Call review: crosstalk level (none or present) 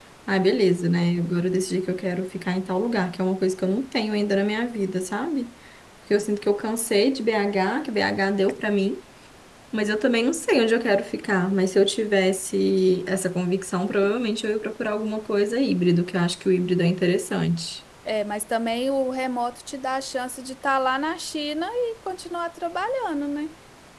none